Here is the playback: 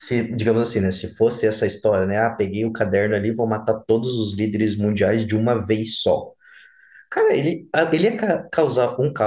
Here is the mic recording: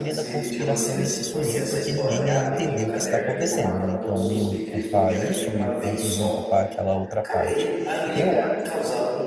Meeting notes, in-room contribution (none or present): present